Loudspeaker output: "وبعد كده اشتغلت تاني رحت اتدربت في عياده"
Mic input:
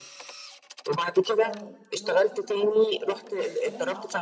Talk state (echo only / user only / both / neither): both